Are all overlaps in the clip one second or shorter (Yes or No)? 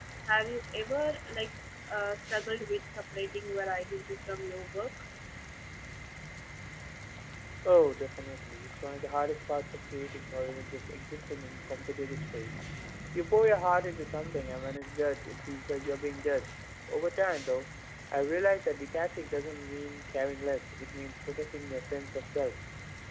Yes